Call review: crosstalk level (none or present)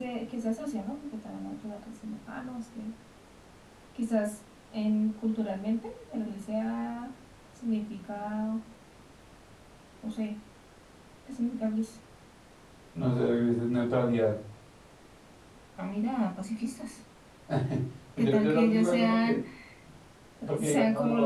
present